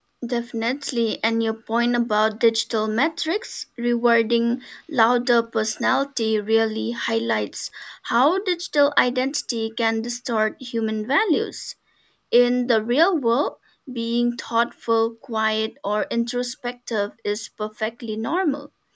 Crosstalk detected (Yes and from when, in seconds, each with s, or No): No